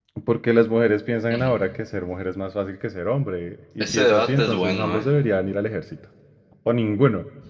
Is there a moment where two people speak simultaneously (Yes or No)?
Yes